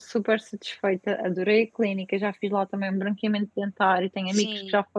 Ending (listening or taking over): listening